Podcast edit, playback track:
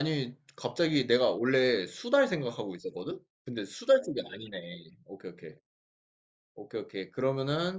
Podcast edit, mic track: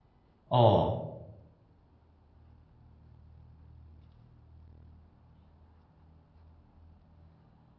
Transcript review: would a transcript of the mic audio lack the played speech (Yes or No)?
Yes